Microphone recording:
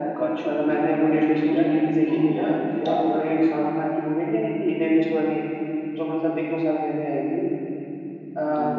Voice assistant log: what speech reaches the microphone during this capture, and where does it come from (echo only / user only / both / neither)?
echo only